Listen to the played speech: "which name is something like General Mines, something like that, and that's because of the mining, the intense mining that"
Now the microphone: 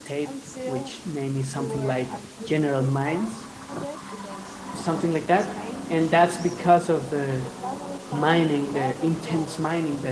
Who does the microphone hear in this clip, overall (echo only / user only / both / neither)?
both